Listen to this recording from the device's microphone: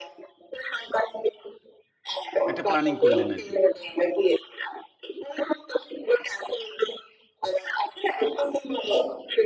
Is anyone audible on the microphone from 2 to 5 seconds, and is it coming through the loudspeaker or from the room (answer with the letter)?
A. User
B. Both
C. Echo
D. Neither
B